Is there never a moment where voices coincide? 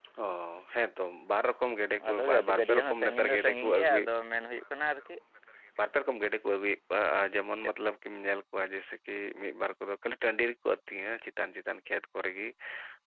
No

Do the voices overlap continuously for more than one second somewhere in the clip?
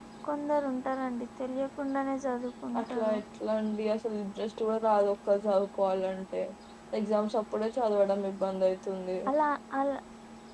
No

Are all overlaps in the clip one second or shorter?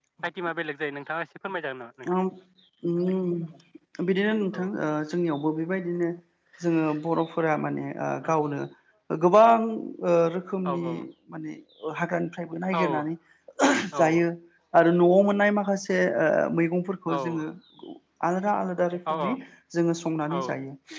Yes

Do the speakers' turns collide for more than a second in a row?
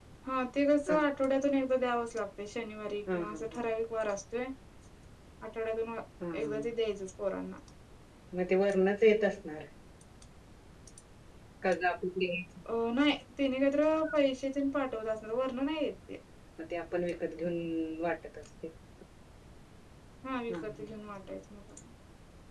No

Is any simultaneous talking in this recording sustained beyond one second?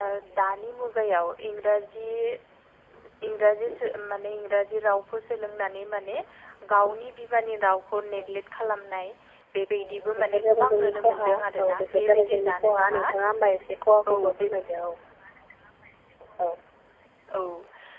Yes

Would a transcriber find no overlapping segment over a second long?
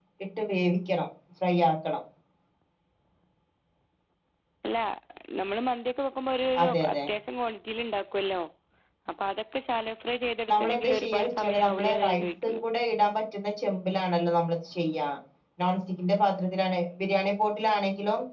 No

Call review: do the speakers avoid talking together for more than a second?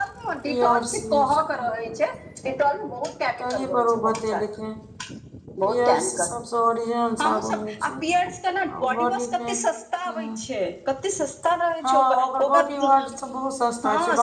No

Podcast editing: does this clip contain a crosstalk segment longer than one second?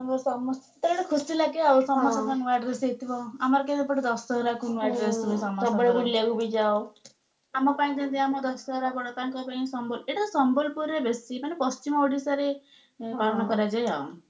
Yes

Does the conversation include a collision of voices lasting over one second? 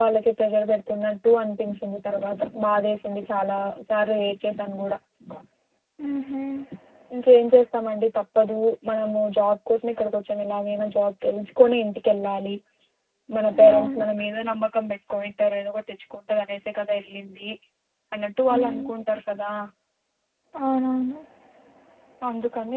No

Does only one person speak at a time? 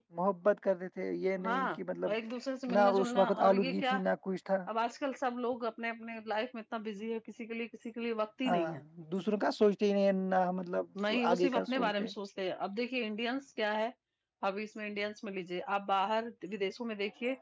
No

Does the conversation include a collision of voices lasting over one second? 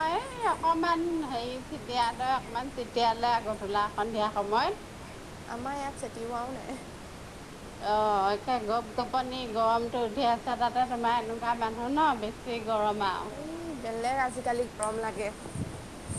No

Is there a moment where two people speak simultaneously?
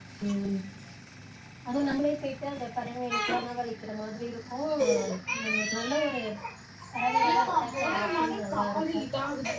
Yes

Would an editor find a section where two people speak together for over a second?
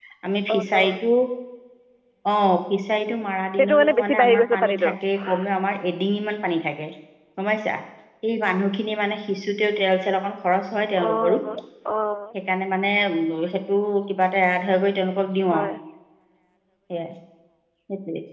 Yes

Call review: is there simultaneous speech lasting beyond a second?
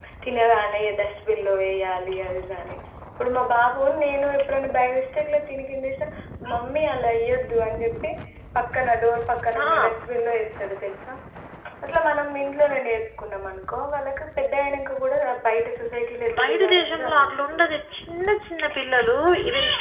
Yes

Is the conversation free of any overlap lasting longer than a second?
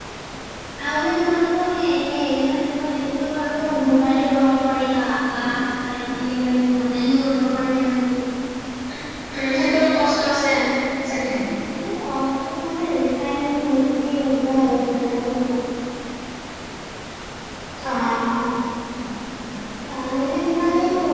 Yes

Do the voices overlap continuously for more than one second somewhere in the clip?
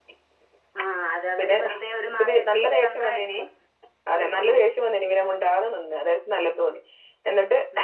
Yes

